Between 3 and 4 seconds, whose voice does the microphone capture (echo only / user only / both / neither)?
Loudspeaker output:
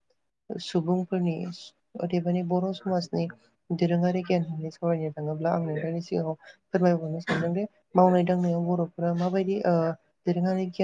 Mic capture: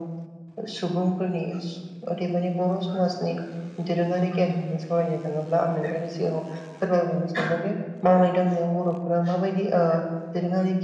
echo only